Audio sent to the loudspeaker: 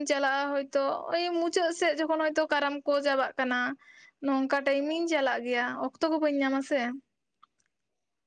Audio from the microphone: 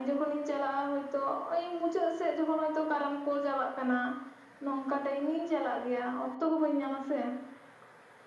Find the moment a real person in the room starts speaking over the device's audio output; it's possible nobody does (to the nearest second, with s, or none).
none